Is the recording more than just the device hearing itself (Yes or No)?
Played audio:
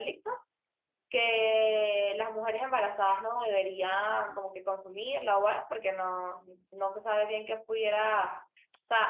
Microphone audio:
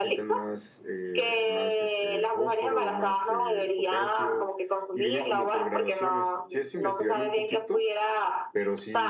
Yes